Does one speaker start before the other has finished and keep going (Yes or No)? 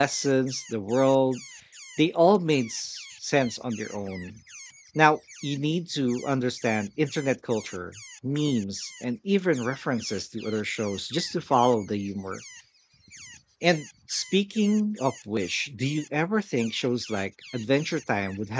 No